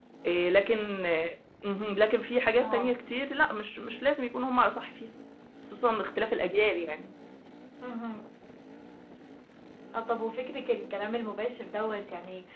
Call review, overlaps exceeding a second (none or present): none